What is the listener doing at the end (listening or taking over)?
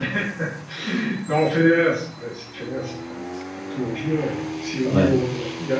listening